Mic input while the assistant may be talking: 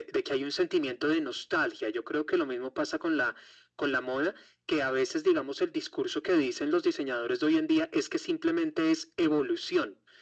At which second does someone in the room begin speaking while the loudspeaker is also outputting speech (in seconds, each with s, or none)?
none